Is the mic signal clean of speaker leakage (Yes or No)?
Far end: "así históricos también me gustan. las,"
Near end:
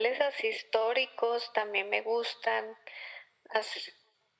No